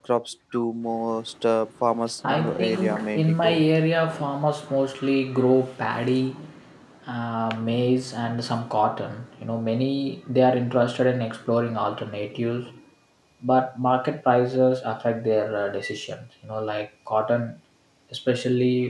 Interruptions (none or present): present